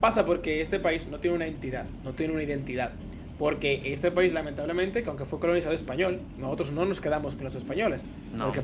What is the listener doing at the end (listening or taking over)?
listening